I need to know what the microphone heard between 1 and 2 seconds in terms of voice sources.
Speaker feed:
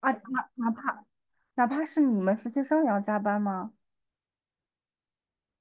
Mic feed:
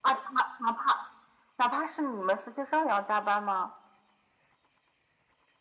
echo only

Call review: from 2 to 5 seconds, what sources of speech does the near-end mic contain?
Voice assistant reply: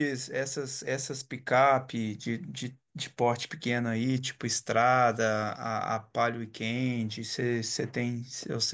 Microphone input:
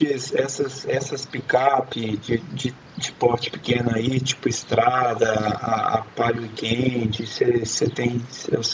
echo only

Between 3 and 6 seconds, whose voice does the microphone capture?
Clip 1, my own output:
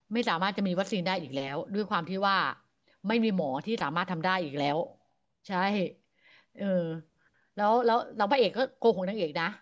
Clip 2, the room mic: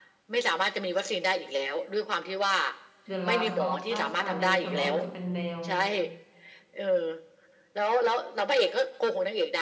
both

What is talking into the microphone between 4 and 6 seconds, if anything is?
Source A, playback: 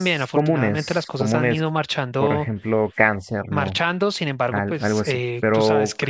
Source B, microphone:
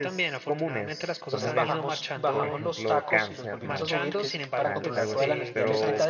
both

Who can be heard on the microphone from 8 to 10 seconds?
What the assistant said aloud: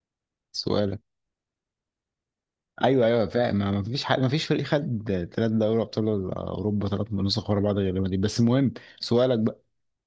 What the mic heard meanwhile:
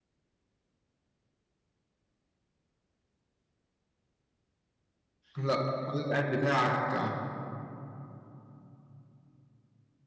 neither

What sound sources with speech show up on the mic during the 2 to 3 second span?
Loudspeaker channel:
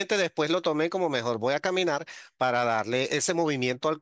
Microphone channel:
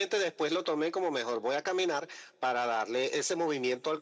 echo only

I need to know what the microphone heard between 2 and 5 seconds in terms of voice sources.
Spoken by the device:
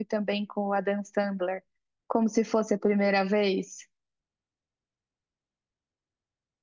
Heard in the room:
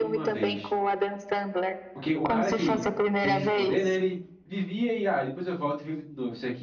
both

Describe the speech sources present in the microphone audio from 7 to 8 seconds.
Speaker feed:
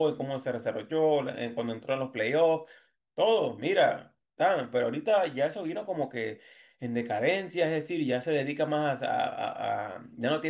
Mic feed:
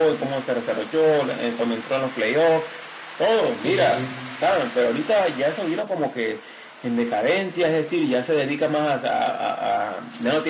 echo only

